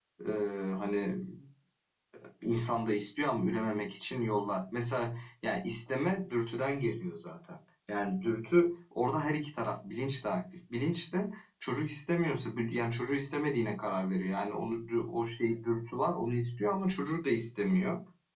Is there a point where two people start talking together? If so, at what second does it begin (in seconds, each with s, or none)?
none